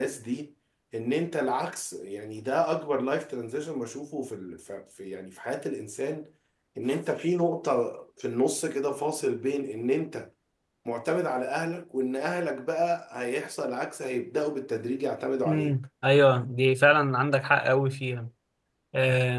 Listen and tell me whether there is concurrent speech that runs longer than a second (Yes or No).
No